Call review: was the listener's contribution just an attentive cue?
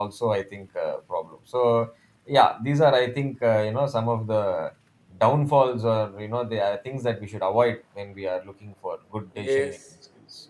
No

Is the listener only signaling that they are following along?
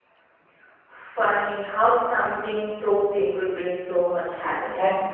No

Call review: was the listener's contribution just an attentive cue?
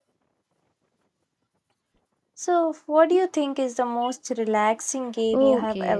No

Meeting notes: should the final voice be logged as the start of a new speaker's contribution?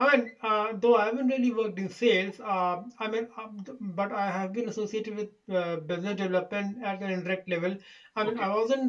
No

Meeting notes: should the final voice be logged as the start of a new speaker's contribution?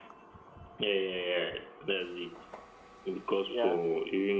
No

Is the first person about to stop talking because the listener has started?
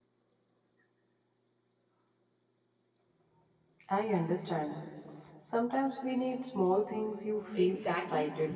Yes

